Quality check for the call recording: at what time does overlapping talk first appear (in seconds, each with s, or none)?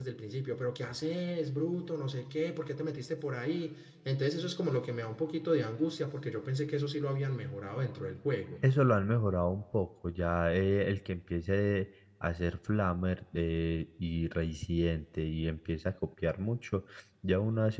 none